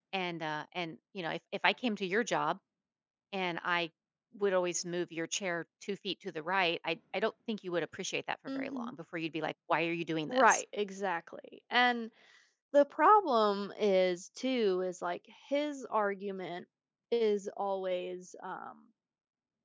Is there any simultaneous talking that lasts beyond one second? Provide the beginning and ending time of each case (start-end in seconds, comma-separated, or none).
none